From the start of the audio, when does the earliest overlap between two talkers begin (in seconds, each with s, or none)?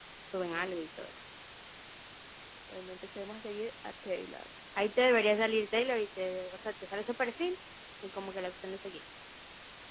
none